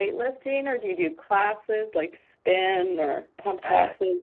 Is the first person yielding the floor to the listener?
Yes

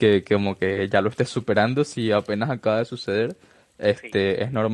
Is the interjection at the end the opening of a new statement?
No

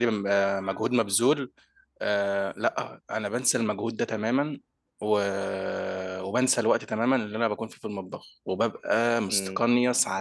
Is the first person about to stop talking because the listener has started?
No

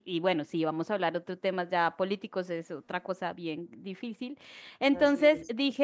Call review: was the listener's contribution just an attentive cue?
Yes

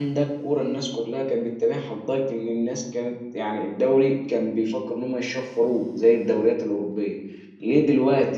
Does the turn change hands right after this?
No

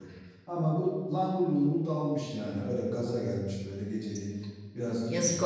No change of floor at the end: No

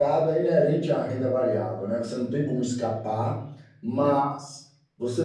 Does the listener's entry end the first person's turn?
No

